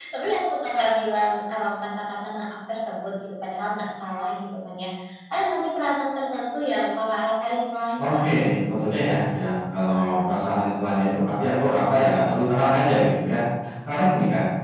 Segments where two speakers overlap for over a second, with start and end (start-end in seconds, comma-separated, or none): none